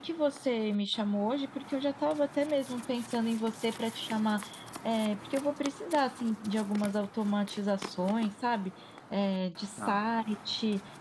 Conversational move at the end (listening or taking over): listening